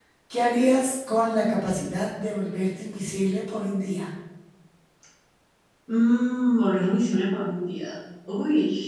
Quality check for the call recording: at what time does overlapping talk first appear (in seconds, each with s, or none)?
none